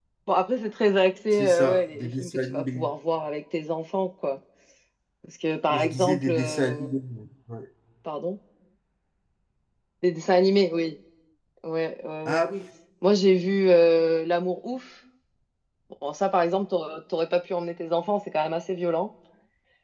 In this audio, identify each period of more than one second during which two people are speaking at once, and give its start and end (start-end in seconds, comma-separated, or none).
1.3-2.9, 5.7-7.0